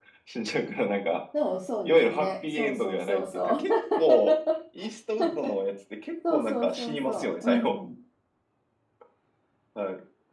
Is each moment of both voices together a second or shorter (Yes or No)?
No